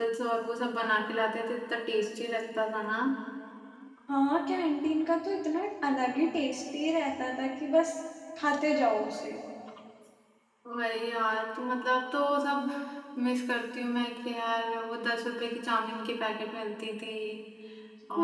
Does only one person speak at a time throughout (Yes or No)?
Yes